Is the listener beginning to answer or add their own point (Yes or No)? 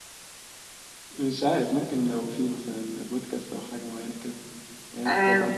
Yes